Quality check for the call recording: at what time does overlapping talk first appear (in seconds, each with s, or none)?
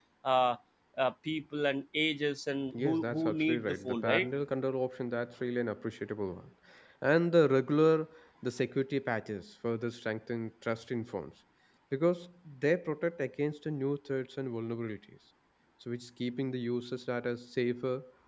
2.7 s